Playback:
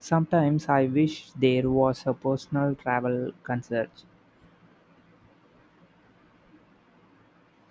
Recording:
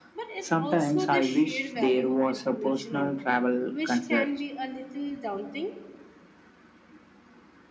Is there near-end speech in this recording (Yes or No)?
Yes